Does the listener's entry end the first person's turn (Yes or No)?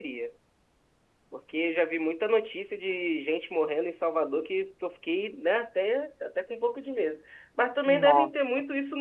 No